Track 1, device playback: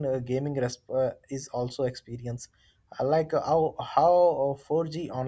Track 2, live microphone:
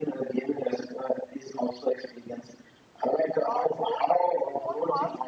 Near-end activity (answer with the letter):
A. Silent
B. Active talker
B